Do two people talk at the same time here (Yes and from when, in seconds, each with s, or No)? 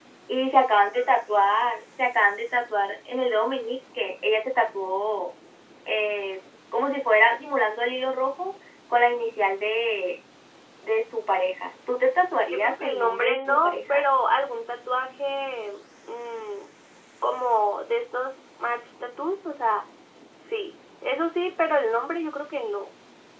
Yes, from 12.5 s